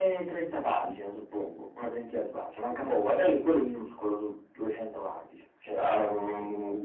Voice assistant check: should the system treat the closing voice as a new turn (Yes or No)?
Yes